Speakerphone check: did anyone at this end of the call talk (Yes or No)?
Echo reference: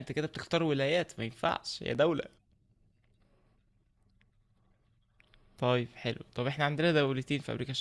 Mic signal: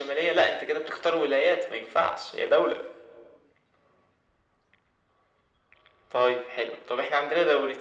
No